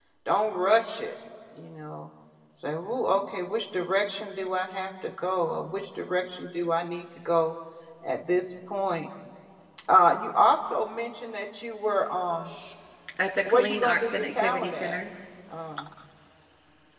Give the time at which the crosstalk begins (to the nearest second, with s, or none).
13 s